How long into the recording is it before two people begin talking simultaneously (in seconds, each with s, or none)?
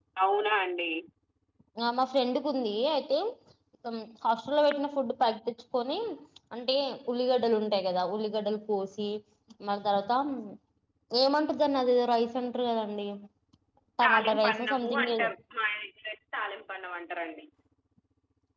14.0 s